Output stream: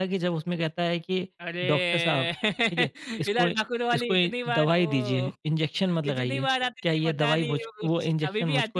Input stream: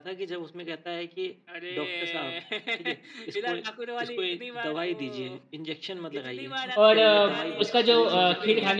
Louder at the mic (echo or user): user